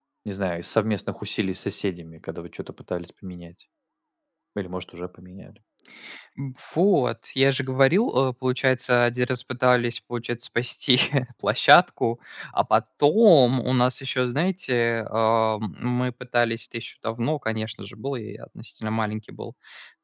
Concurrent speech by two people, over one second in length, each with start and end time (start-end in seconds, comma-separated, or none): none